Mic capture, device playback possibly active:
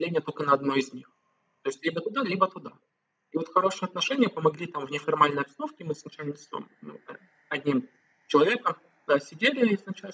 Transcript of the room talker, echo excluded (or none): none